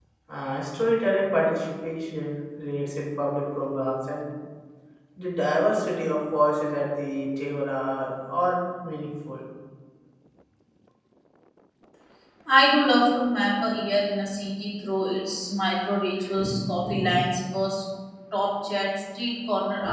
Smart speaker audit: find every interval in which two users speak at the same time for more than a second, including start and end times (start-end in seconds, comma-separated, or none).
none